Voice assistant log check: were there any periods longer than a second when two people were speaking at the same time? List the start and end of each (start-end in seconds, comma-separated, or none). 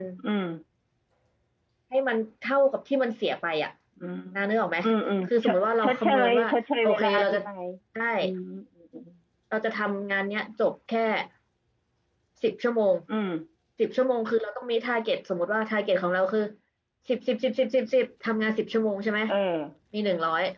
5.2-7.4